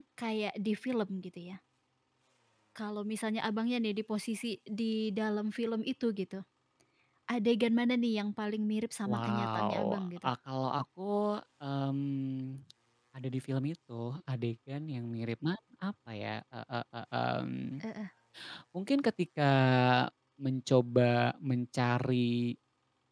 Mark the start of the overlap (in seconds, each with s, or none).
9.0 s